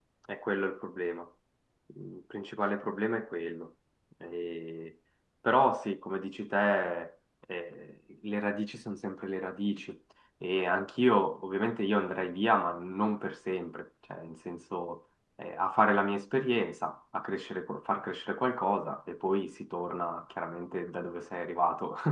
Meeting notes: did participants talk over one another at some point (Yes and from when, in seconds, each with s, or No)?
No